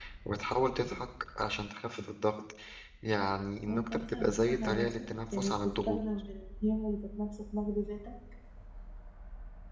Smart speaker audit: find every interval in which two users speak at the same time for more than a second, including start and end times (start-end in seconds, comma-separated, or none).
3.6-6.0